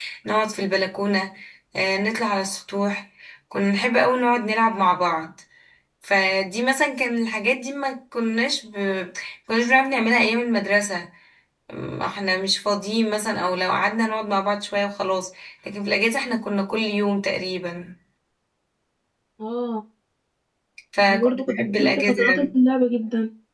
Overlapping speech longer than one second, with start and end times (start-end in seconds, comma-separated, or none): 21.1-22.5